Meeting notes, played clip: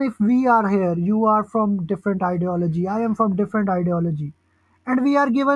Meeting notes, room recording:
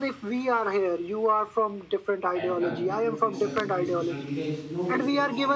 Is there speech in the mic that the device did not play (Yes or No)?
Yes